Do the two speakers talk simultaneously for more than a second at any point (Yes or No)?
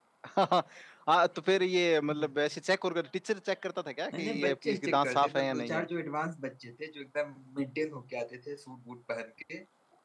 Yes